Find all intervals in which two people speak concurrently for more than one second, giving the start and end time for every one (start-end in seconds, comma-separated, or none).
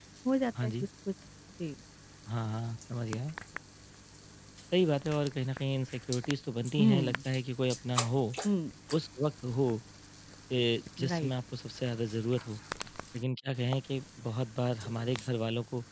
none